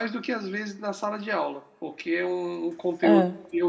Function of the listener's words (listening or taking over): listening